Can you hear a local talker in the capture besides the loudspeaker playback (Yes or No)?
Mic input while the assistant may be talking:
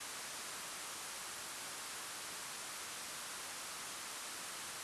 No